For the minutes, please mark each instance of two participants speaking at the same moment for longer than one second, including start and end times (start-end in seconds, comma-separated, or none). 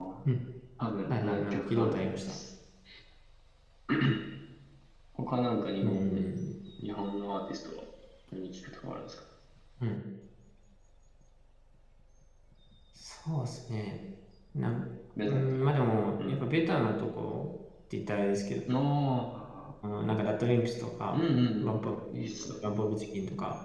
1.1-2.4